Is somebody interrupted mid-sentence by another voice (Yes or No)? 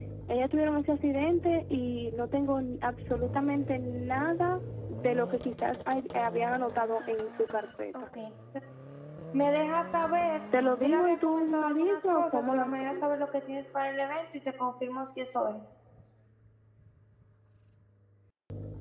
Yes